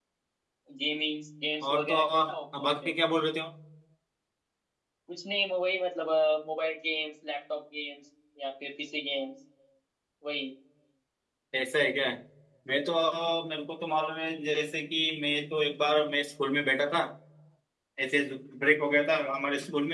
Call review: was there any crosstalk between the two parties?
Yes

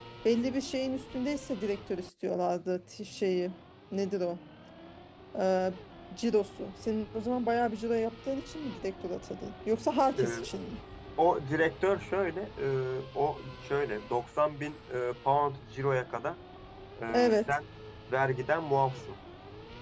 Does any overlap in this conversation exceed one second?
No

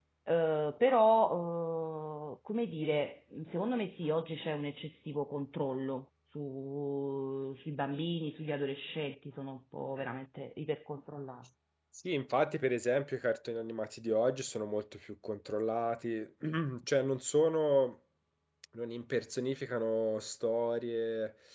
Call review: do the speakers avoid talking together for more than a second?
Yes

